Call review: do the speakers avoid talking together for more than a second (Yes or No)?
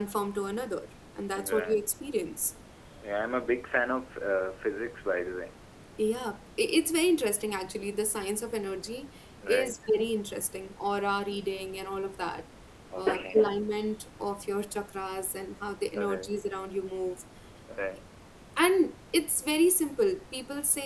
Yes